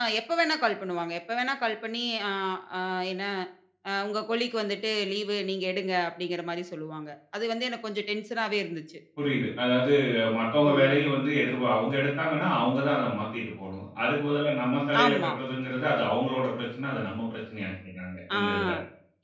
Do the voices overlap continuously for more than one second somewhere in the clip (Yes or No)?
No